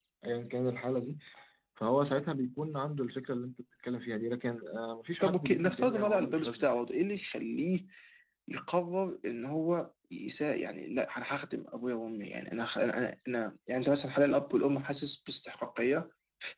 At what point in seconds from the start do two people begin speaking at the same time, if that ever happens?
5.2 s

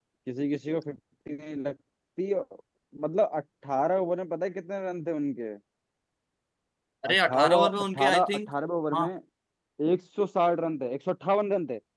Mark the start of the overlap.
7.1 s

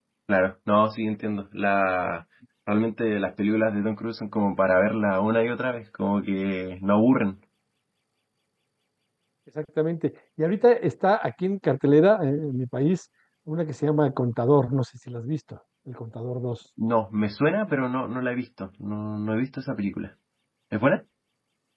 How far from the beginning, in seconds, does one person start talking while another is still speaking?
none

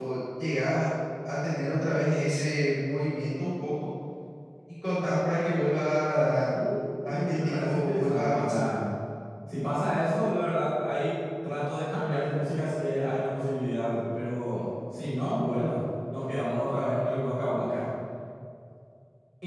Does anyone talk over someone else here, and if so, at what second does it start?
7.1 s

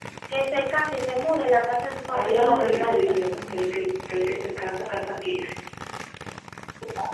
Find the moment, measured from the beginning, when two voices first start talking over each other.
2.1 s

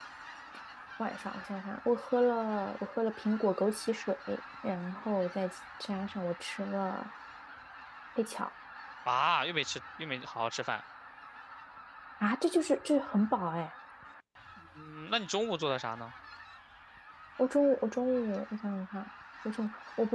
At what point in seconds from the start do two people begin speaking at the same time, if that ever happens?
none

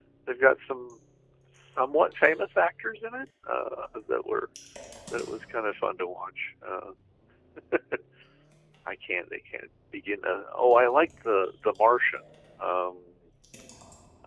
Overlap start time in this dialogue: none

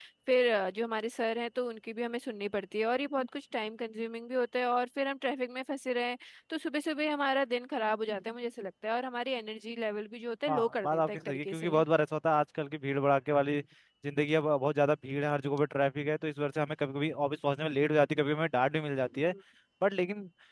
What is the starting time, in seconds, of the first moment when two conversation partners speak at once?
10.5 s

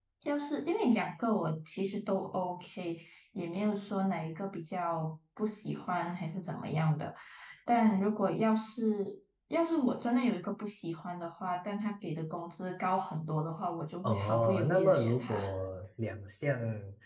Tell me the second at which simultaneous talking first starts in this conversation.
14.0 s

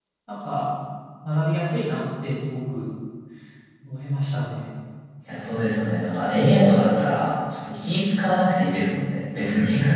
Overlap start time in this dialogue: none

